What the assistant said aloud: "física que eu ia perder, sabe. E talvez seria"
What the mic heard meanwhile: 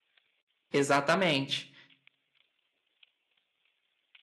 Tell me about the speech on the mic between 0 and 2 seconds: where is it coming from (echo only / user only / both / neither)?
user only